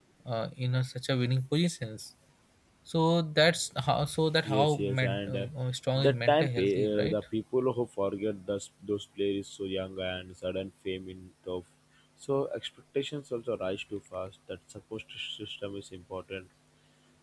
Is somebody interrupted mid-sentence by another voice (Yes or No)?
Yes